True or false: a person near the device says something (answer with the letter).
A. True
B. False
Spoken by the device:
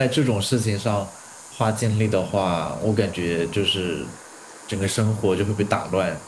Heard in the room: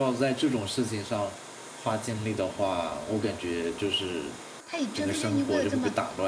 A